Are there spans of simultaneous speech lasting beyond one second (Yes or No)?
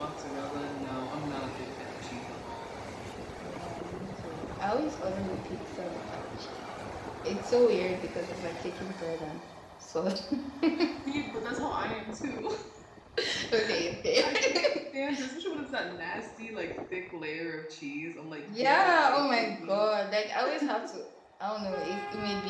Yes